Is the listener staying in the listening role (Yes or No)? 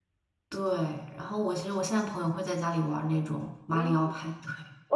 No